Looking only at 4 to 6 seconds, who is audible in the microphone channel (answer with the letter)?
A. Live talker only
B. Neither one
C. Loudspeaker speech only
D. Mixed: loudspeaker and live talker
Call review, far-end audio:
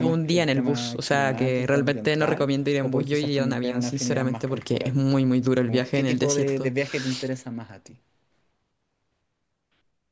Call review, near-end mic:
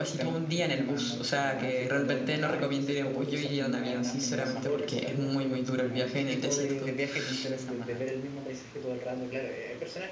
D